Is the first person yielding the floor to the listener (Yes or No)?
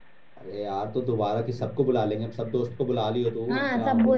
Yes